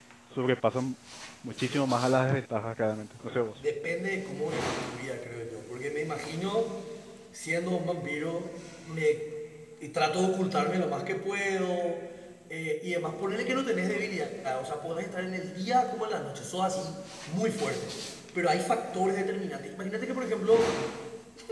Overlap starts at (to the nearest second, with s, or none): none